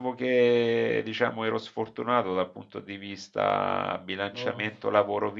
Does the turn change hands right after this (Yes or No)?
No